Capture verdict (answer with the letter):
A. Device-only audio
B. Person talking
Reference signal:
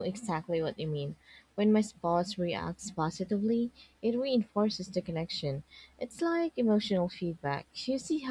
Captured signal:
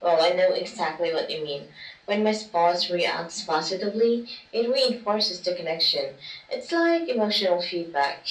A